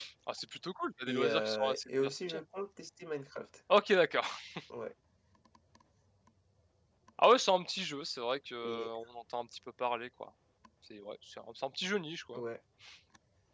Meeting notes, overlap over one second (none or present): present